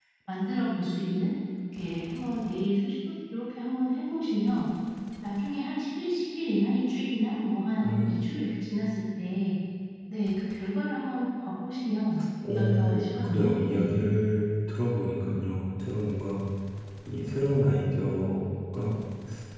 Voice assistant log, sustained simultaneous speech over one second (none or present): present